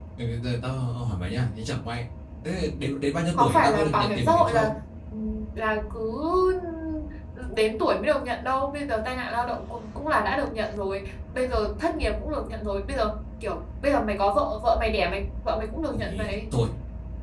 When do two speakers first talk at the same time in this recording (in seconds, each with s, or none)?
3.4 s